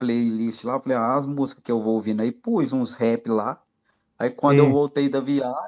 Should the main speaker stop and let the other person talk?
No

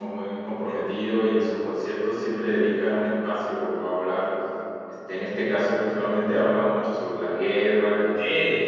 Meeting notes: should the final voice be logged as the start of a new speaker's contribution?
Yes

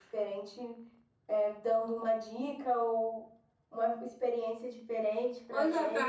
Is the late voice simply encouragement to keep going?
No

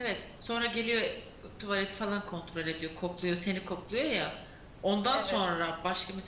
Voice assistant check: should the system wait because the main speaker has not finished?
Yes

